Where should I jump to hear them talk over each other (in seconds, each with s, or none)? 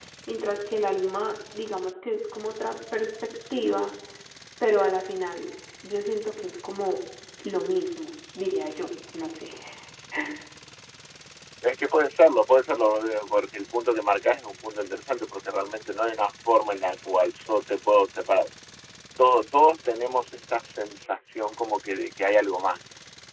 none